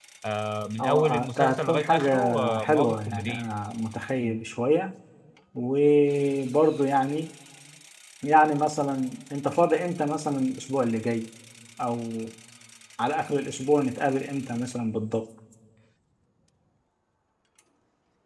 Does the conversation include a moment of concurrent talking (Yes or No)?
Yes